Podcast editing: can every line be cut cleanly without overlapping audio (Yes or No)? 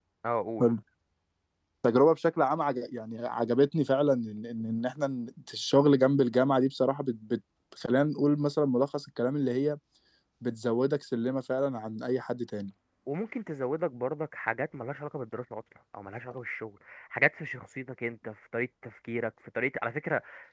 Yes